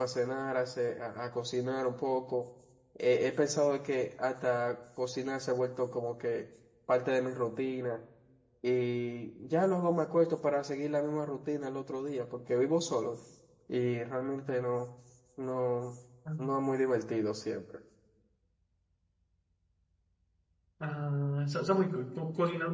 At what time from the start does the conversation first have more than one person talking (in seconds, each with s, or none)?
none